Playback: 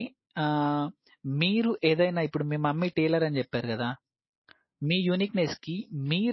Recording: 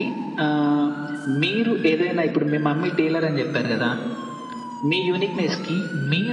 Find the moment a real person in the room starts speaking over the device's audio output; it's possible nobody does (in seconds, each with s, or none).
none